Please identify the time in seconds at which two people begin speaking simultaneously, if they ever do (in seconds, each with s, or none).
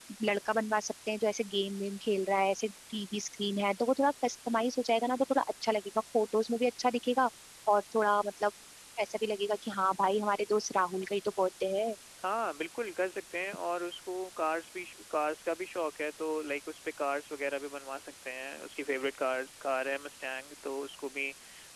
none